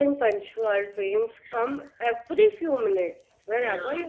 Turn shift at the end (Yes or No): No